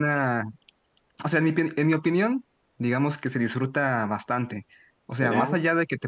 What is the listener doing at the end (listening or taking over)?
listening